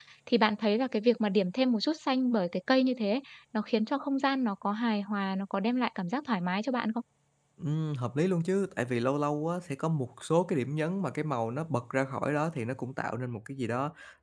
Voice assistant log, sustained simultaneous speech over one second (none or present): none